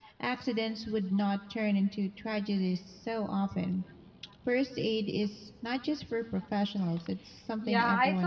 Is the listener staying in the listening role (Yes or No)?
No